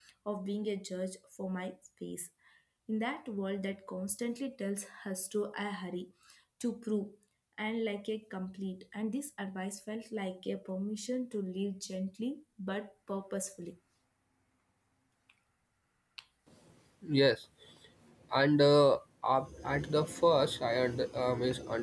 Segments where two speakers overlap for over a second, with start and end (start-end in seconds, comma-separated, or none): none